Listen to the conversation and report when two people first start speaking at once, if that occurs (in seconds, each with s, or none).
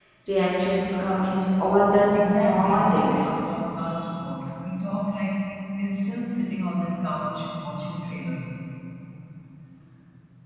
2.1 s